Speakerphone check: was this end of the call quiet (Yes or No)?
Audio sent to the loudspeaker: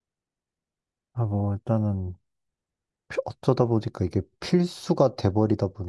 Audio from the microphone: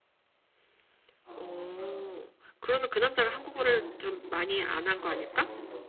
No